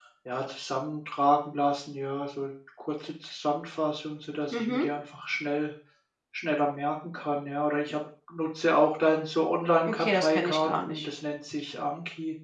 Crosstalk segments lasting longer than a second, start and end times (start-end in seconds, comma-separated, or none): 9.9-11.1